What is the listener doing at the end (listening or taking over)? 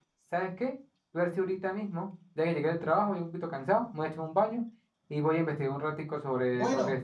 taking over